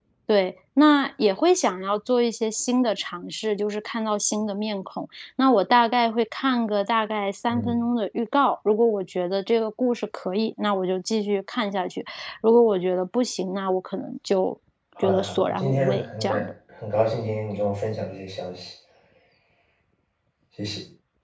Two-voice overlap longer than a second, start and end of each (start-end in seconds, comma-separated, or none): 15.0-16.5